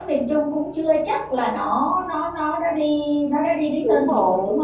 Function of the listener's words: taking over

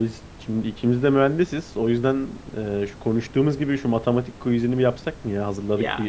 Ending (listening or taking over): taking over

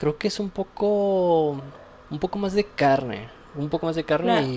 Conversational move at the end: taking over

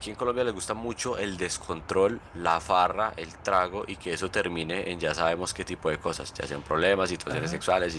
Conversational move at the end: listening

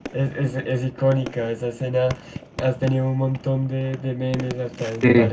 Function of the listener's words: listening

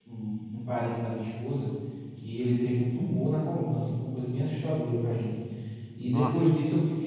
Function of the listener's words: listening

